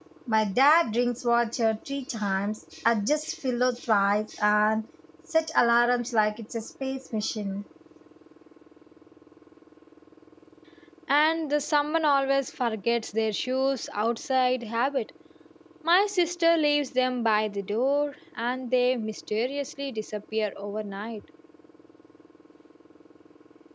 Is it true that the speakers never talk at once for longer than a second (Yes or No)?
Yes